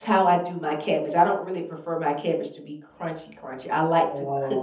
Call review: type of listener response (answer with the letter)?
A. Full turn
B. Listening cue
A